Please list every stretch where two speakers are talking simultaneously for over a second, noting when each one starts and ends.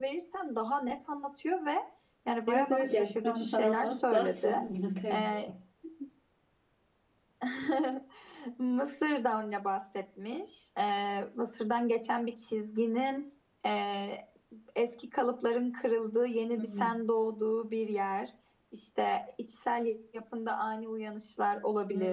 2.5-4.6

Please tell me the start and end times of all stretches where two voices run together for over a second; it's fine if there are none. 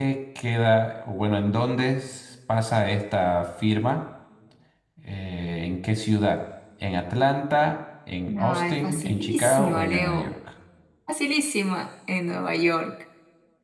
8.4-10.3

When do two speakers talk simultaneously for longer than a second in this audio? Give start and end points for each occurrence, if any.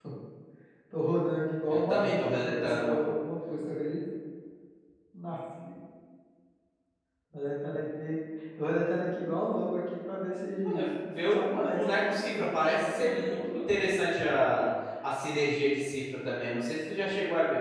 1.7-3.0, 10.7-13.8

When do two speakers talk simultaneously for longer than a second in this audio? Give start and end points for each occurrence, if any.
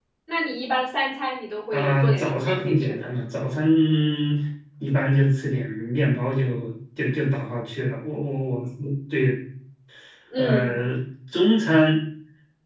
1.7-3.1

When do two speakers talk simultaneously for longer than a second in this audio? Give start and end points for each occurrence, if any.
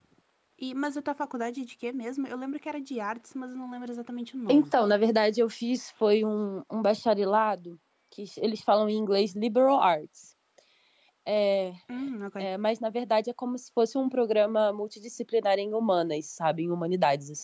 none

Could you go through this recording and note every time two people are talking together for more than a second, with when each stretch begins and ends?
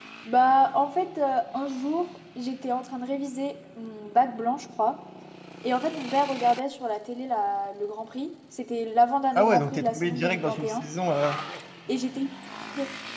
9.3-10.8

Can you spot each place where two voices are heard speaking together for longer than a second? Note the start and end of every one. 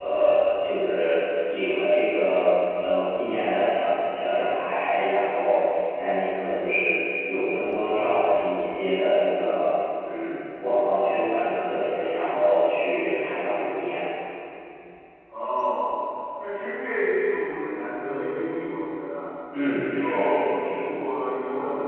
19.8-21.0

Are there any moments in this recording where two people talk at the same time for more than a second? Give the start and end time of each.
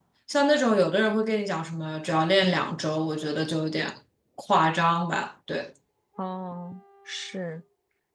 none

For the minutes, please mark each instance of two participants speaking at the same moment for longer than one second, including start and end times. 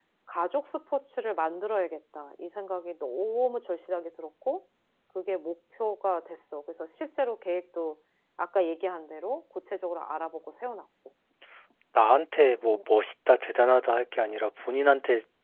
none

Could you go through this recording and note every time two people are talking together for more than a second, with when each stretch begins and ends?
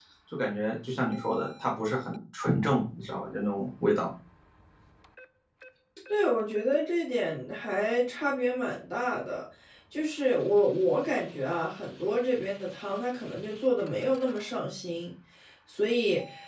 none

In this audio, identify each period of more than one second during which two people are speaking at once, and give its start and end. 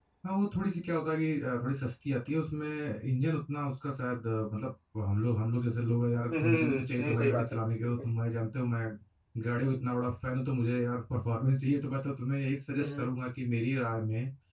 6.3-8.0

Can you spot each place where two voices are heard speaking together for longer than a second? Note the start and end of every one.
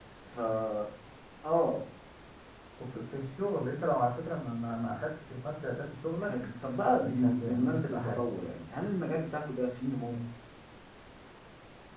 7.0-8.2

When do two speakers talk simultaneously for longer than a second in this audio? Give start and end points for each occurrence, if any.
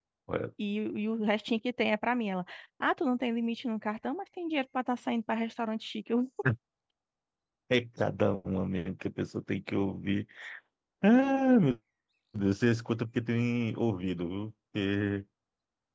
none

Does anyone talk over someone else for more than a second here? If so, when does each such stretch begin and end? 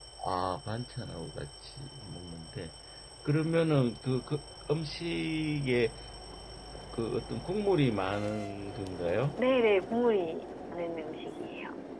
none

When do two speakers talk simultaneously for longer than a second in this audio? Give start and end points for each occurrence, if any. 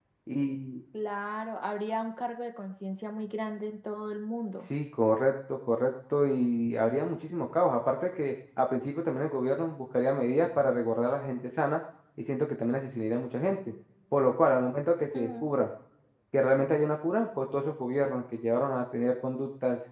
none

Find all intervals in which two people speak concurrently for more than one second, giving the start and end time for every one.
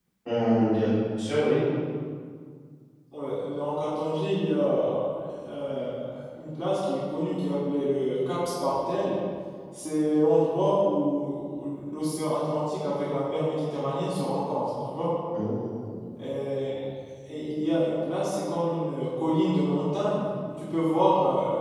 none

